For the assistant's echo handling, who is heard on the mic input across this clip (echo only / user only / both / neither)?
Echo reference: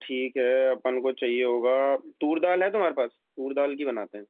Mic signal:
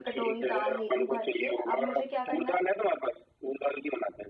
both